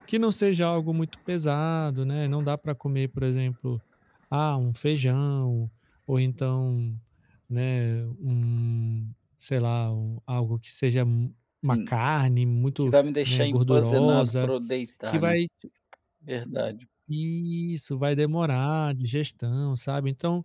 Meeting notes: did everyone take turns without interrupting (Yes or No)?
No